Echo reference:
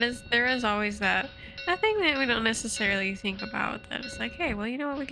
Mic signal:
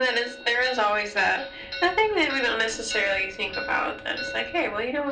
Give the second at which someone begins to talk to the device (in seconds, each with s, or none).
none